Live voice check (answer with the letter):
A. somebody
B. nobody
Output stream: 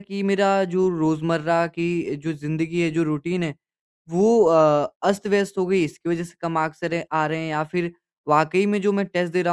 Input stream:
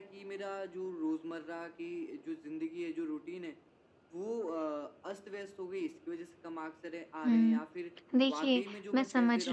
A